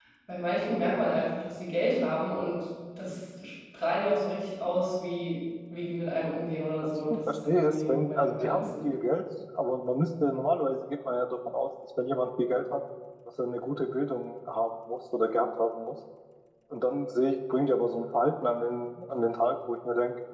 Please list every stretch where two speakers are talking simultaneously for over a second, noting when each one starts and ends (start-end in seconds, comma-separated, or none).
6.8-8.7